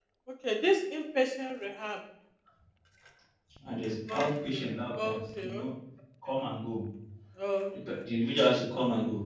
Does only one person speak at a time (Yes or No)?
No